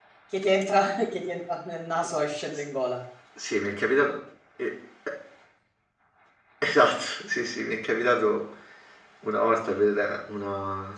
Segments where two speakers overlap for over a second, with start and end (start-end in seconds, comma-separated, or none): none